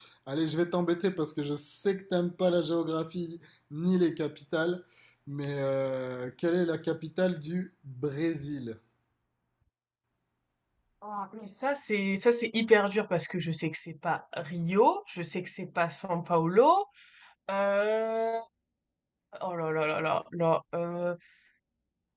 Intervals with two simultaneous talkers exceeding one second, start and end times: none

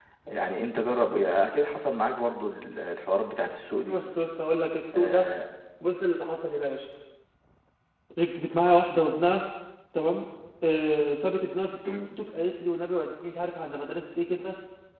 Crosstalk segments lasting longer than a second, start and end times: none

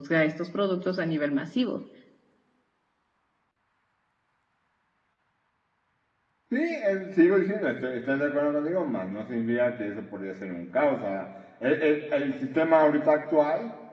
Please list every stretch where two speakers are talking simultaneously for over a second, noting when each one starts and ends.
none

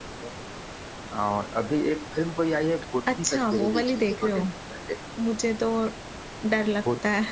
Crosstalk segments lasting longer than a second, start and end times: 3.2-4.5

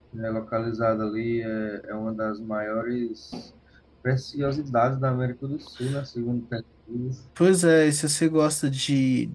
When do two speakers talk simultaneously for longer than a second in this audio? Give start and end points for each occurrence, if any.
none

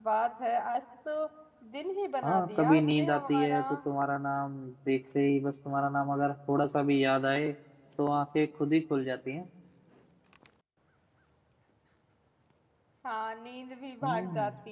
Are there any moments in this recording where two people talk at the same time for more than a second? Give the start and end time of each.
2.2-3.6

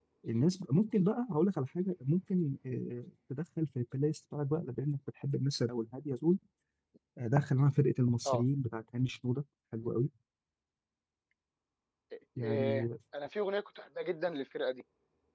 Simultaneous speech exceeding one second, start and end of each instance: none

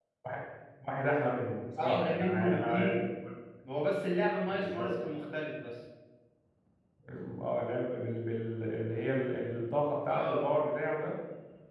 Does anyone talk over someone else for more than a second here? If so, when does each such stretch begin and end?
1.8-3.0

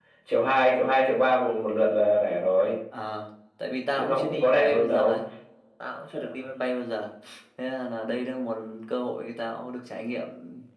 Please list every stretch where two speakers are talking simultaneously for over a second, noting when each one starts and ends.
4.0-5.2

